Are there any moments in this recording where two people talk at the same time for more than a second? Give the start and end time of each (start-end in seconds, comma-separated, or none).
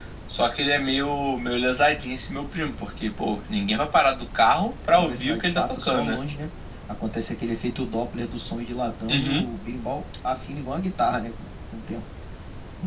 4.9-6.2